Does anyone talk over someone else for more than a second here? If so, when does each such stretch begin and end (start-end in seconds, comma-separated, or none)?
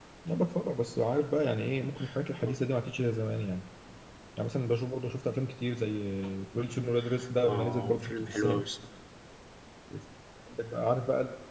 7.5-8.7